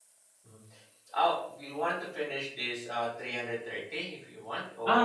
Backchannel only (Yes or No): No